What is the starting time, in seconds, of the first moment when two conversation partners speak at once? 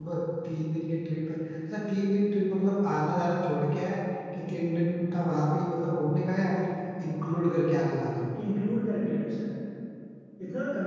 none

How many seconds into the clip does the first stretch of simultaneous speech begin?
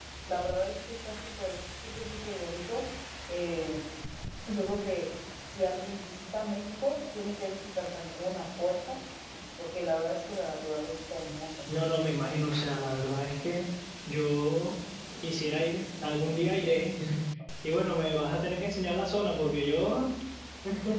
none

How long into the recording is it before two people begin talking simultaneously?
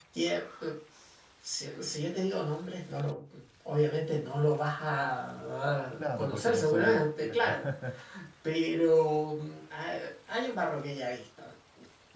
6 s

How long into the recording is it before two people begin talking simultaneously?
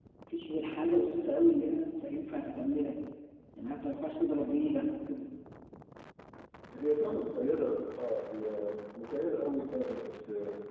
none

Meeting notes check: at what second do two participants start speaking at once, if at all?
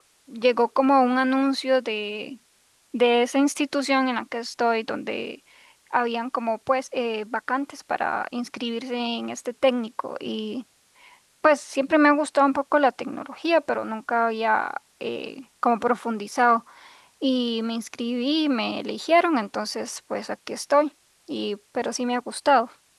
none

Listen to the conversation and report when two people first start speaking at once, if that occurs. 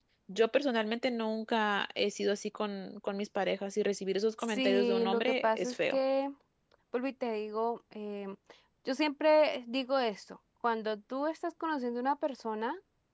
4 s

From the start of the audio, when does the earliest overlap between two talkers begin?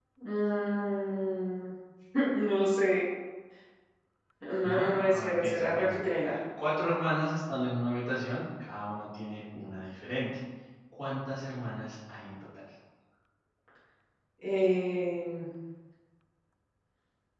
5 s

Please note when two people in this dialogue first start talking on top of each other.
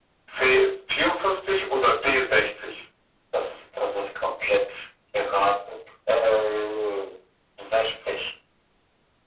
none

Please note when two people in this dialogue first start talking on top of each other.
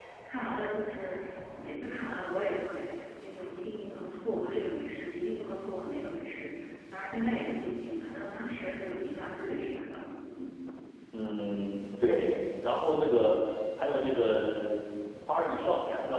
none

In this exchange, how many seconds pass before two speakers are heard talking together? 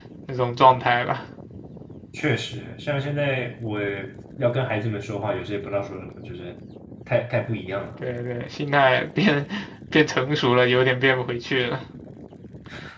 none

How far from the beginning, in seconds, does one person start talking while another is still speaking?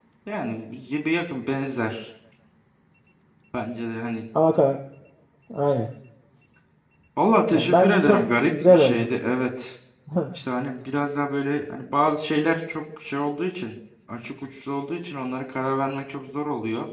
8 s

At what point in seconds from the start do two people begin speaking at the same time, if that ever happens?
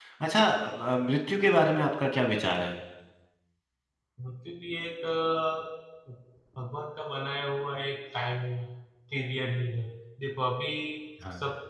none

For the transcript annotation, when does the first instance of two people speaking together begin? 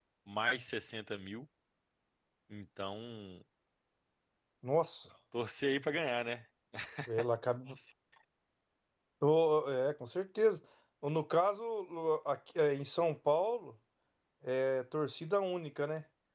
none

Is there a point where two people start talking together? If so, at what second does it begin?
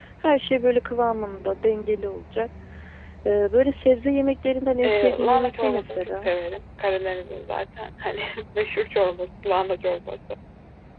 5 s

